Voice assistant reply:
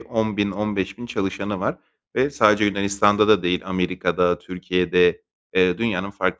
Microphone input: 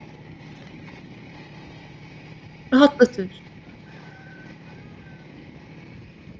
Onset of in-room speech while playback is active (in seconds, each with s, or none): 2.7 s